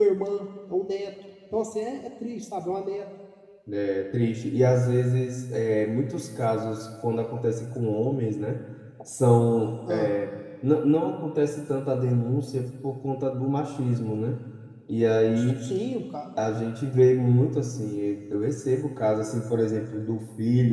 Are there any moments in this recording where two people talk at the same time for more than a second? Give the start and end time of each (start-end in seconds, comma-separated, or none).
none